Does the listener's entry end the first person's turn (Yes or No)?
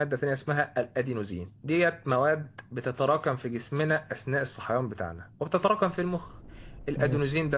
No